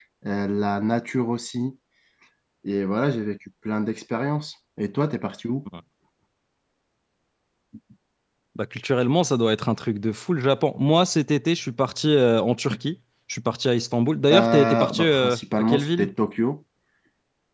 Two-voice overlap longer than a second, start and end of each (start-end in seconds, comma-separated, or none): 14.3-16.1